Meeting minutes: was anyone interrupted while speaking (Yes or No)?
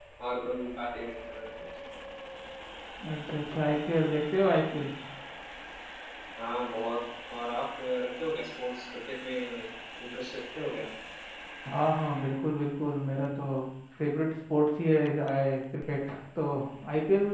No